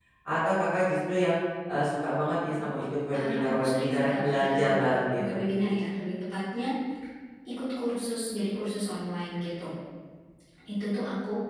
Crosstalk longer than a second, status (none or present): present